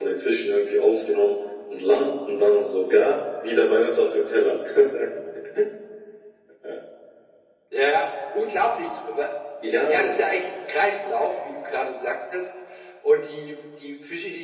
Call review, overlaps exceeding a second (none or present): none